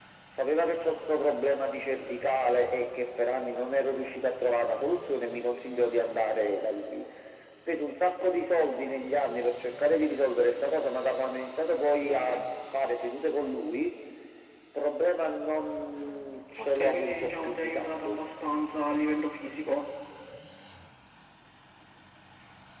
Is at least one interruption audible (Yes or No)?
Yes